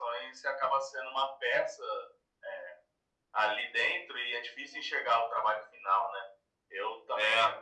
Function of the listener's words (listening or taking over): listening